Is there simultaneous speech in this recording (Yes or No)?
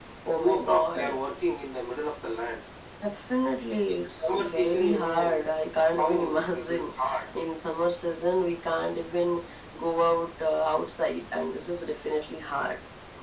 Yes